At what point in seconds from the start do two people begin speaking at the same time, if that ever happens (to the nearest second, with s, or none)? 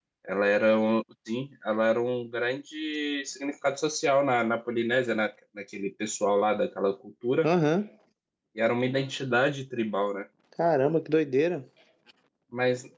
none